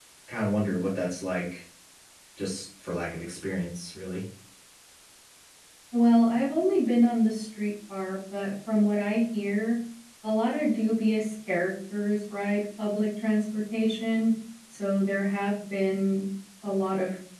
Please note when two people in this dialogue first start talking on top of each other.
none

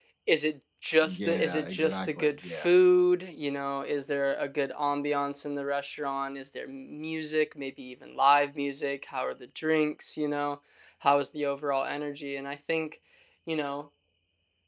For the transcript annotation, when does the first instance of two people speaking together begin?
1.0 s

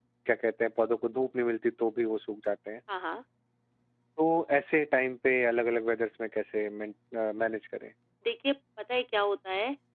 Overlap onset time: none

